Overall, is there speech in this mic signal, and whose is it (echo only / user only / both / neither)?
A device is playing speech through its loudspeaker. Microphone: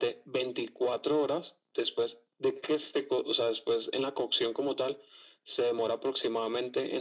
echo only